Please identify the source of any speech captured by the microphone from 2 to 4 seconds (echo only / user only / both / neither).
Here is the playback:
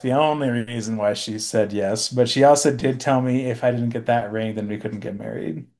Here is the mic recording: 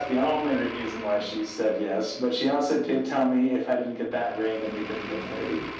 echo only